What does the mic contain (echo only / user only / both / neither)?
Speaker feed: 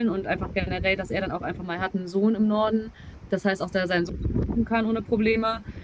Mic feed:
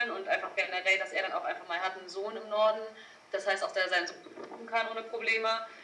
echo only